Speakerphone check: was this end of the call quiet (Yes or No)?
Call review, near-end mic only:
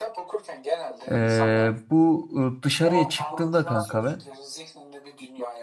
No